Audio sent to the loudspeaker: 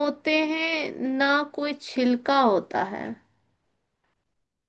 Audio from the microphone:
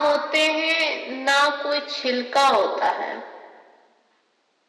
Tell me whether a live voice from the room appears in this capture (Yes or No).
No